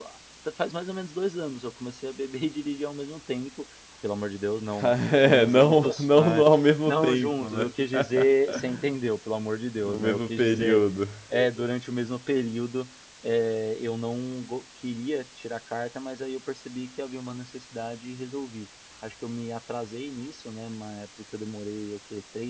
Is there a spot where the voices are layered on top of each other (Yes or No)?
Yes